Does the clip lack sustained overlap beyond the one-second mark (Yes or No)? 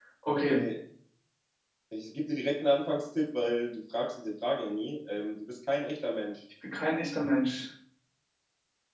Yes